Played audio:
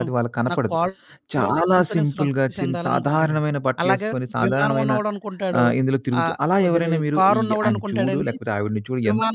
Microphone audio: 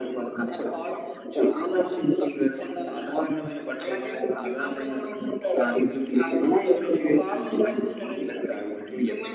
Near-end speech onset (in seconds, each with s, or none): none